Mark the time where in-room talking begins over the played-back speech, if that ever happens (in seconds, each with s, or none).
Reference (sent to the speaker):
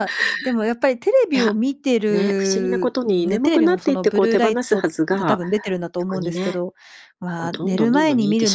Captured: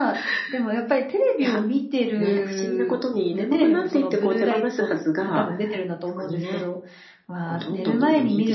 none